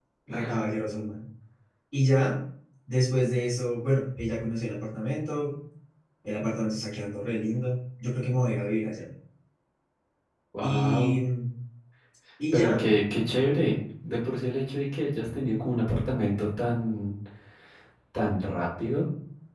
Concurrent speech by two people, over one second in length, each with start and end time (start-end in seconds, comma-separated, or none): none